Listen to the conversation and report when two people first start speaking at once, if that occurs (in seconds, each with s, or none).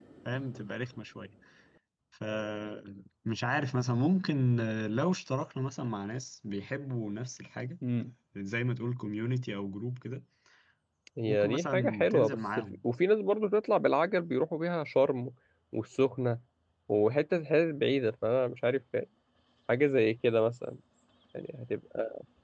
11.3 s